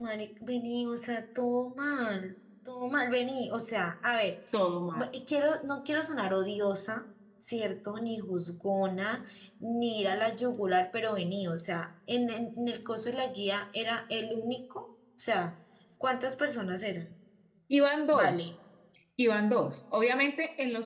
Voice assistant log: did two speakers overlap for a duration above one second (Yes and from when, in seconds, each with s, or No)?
No